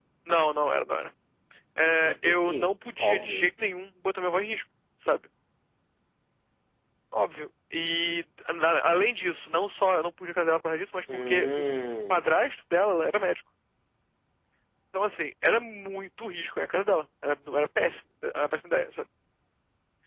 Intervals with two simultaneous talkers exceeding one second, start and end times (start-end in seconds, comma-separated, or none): 2.0-3.5